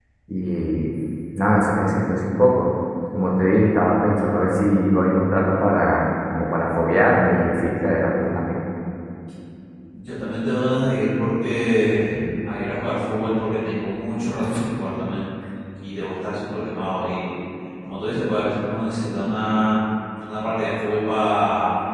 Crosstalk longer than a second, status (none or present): none